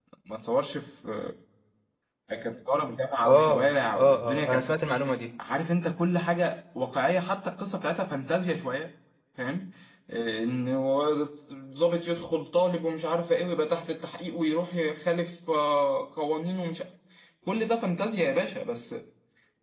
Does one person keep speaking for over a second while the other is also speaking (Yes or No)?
Yes